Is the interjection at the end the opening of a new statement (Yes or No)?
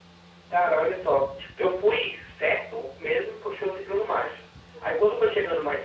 No